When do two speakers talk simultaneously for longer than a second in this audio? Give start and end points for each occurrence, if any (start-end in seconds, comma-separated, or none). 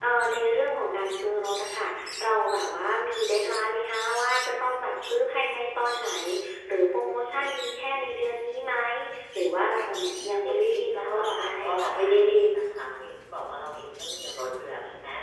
10.4-12.0